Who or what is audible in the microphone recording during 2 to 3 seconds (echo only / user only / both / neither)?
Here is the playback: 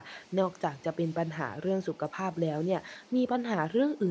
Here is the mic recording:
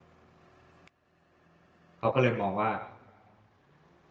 user only